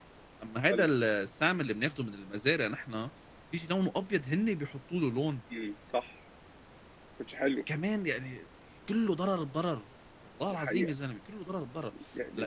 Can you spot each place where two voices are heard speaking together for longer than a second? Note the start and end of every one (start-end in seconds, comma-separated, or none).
none